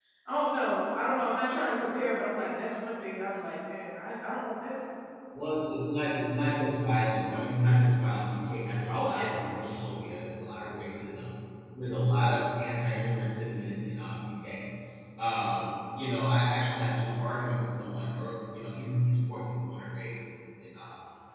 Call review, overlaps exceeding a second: none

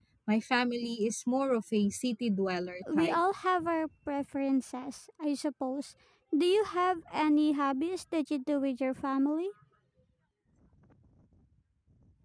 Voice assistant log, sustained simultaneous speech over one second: none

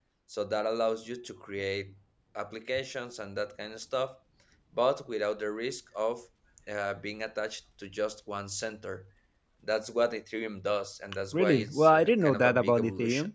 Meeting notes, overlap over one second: present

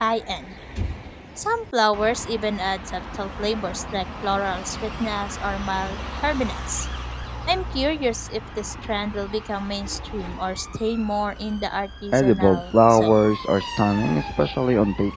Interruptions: present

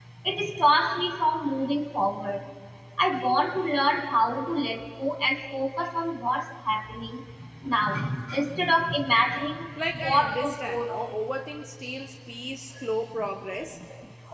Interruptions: present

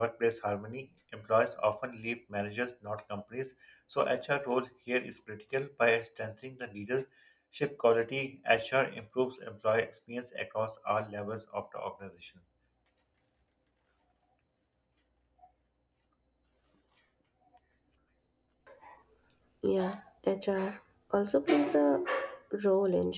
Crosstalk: none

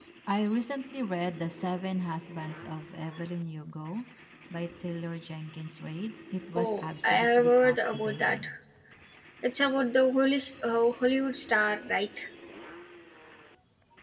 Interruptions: present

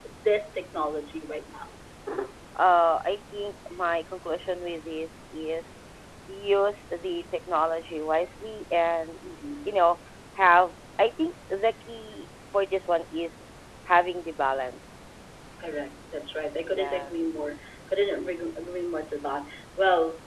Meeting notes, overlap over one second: none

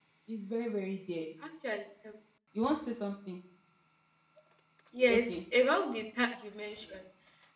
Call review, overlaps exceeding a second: none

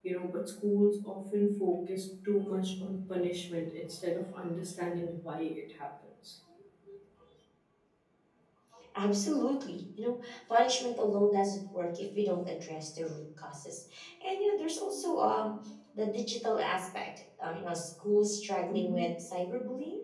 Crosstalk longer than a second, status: none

